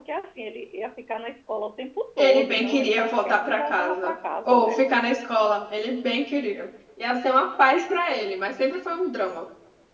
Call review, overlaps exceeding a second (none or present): present